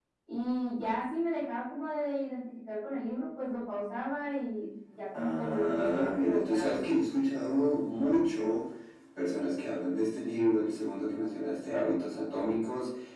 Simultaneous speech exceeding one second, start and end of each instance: 5.1-6.9

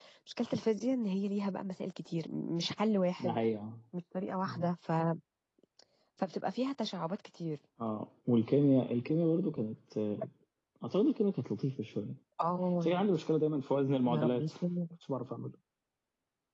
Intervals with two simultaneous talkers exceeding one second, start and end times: none

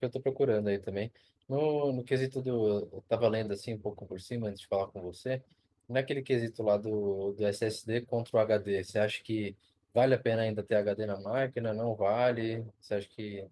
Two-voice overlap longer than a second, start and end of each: none

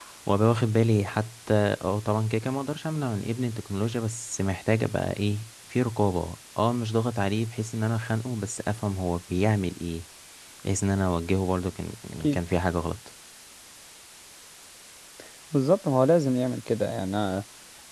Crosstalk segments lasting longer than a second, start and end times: none

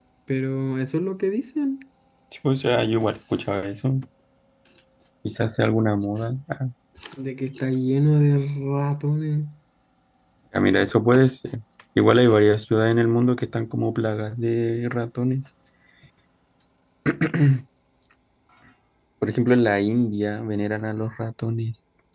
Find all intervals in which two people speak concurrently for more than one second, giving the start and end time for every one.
none

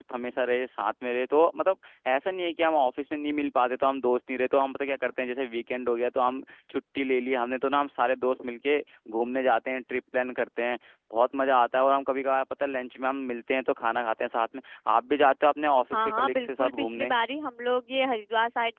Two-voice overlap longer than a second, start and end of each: 15.9-17.1

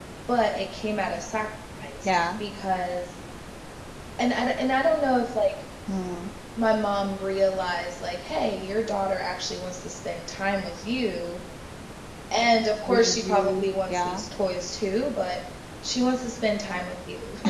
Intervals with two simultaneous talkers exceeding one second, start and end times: 12.9-14.3

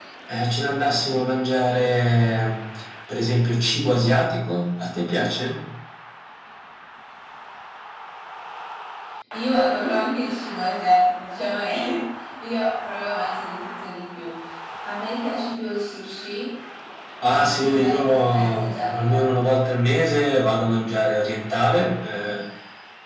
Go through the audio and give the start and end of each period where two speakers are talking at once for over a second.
17.2-19.2

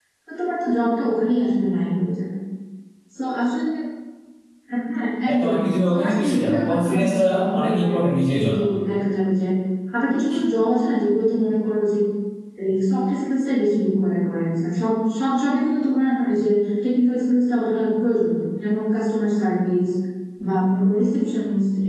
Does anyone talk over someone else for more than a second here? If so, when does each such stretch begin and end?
5.9-8.0

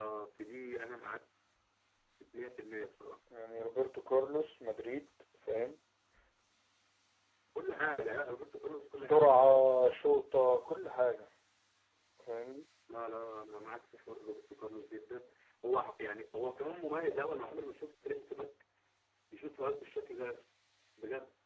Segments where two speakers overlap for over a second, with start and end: none

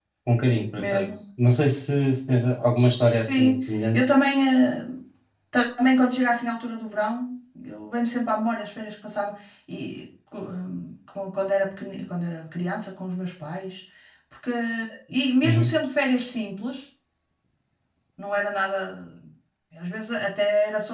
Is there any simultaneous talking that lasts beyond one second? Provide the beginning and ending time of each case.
2.8-4.0

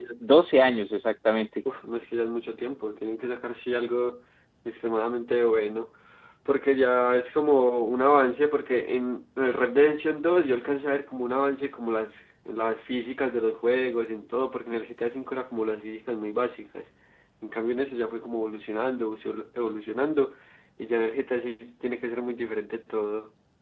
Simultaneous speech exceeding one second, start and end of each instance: none

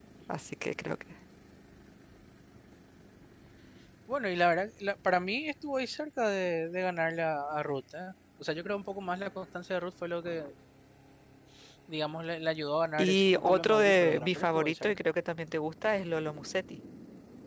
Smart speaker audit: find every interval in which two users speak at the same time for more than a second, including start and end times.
13.0-14.9

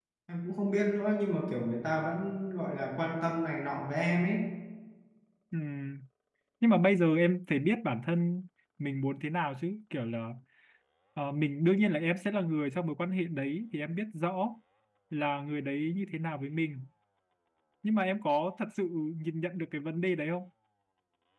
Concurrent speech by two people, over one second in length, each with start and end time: none

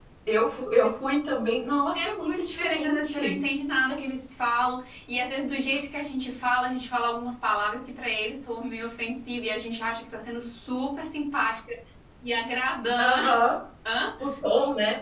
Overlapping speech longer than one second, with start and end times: 1.9-3.4

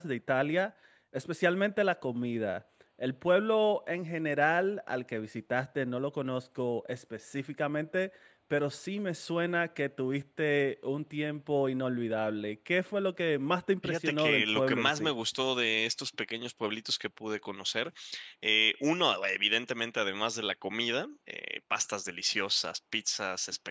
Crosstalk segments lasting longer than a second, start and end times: 13.8-15.1

